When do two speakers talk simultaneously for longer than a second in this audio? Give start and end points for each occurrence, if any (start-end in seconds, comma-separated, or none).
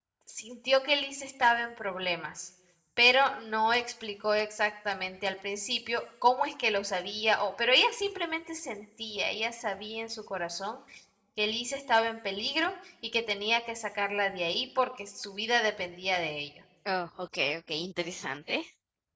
none